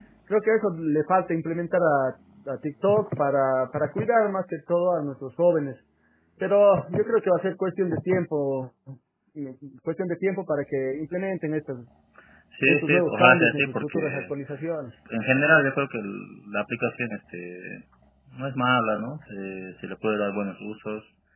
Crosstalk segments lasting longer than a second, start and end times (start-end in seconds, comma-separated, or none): 12.7-14.3